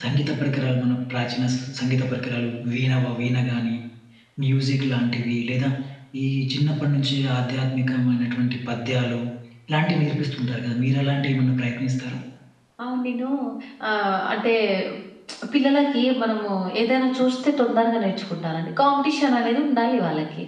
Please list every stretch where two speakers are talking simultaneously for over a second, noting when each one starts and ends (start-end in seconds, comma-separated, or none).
none